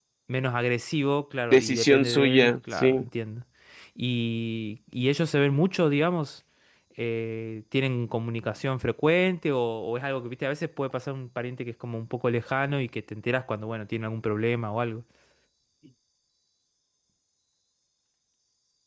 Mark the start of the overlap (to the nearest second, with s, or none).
2 s